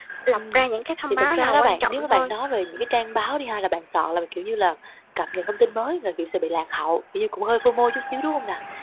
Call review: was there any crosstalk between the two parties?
Yes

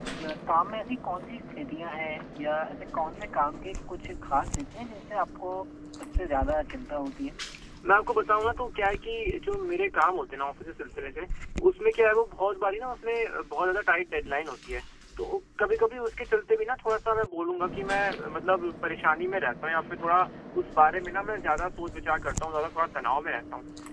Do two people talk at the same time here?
No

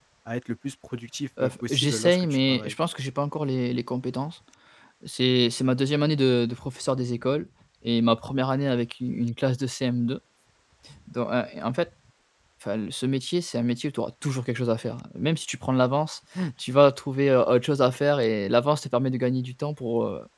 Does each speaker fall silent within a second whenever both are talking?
No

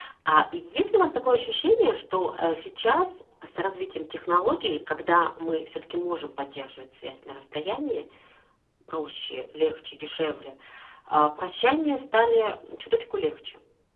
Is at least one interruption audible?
No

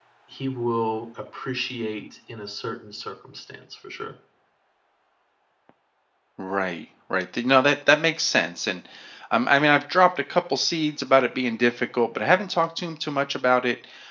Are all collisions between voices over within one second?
Yes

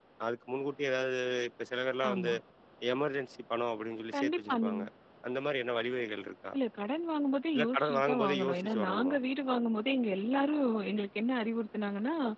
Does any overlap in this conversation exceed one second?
Yes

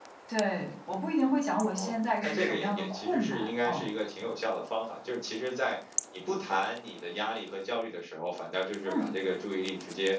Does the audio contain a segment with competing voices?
Yes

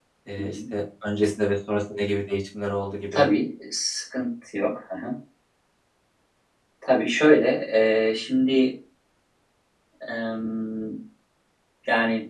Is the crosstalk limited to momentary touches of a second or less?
Yes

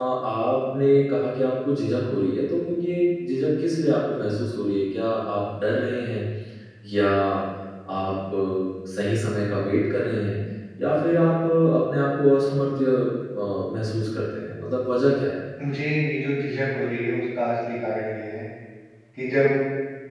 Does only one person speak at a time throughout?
Yes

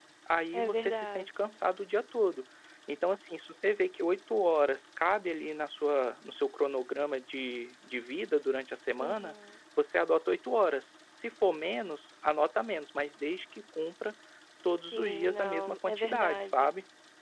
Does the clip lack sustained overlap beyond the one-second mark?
No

